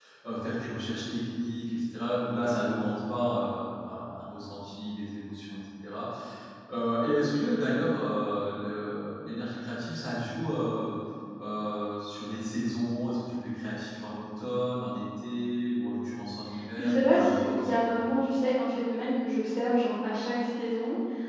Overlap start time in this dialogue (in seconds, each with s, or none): 16.8 s